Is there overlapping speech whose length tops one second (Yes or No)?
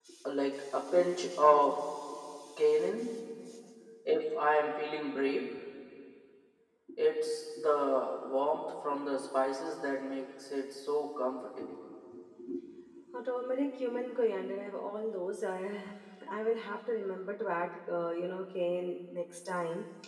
No